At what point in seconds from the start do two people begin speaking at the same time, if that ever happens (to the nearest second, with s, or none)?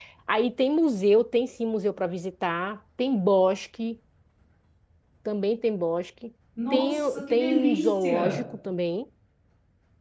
7 s